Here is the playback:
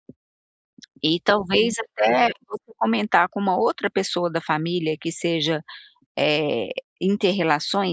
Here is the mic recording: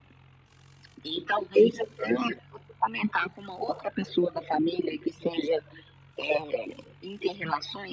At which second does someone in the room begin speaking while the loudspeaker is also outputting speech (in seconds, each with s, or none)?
none